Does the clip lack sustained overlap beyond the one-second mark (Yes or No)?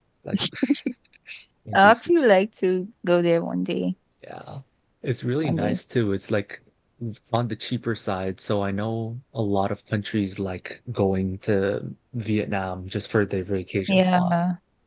Yes